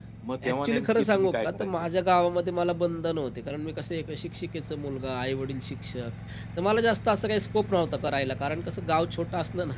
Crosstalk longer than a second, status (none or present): present